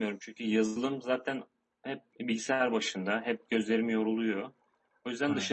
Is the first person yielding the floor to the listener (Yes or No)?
No